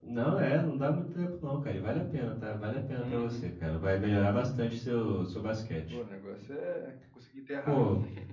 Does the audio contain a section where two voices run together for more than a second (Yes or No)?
No